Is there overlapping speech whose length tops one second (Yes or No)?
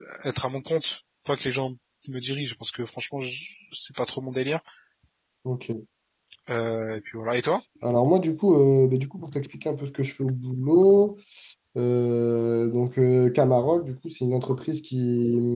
No